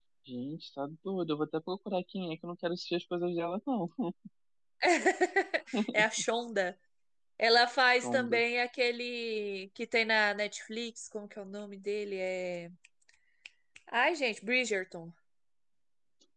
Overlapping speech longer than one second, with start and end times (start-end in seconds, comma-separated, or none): none